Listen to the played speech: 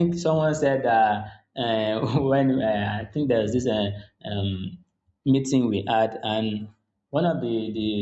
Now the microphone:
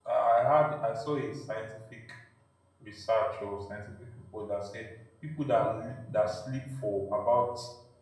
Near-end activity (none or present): present